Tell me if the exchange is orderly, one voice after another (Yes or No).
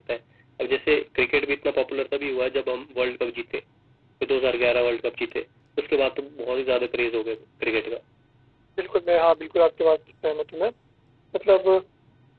Yes